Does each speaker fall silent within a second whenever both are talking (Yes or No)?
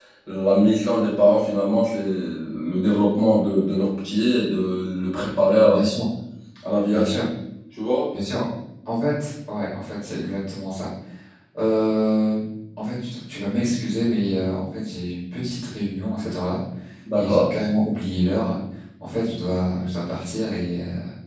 Yes